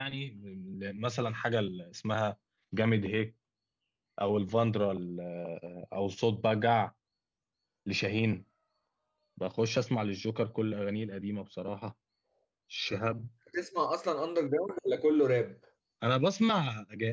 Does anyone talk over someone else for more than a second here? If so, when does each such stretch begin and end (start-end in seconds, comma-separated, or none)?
none